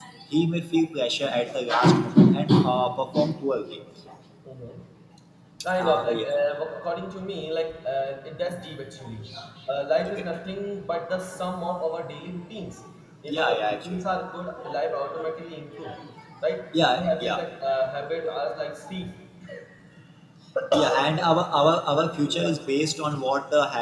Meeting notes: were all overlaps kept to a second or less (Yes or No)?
No